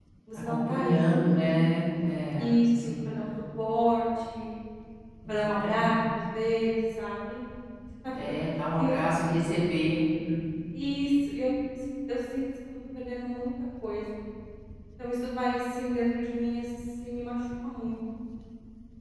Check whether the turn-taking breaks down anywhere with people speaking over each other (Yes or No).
Yes